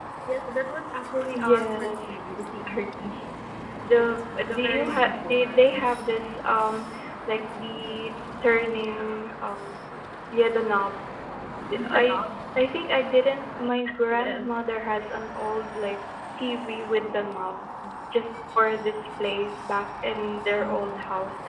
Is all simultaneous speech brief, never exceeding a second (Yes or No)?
No